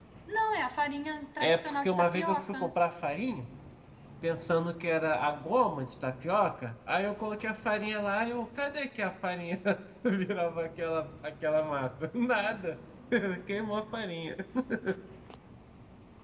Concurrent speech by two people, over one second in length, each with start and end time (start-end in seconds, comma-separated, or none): 1.4-2.7